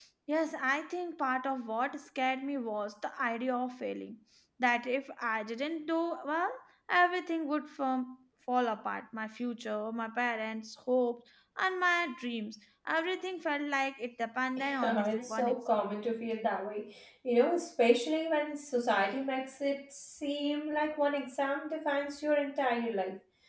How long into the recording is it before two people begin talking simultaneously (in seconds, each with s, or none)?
14.6 s